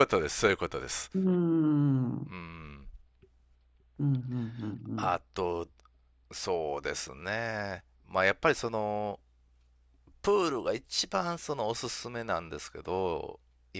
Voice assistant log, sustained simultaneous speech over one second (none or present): none